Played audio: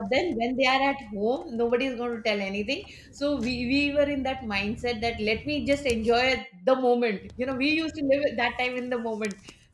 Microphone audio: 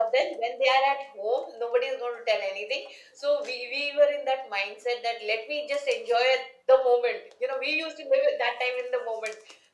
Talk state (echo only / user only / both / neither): echo only